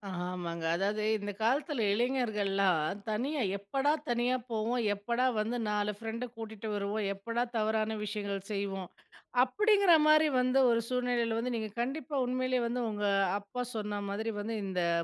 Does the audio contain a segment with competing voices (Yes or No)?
No